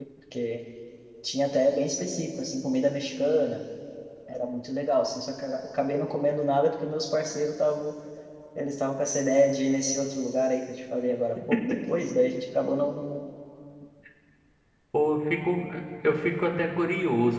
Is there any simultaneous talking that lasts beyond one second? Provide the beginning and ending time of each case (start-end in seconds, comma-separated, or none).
none